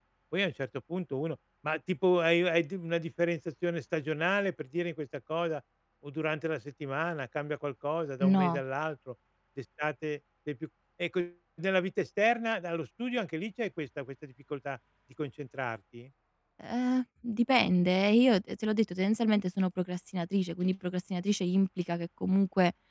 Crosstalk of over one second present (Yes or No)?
No